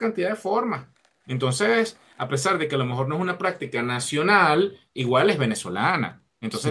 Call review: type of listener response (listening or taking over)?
listening